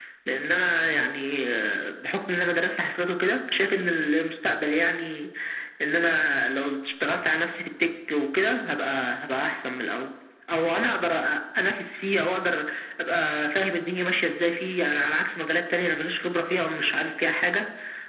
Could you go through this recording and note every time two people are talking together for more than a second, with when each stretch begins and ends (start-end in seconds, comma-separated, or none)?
none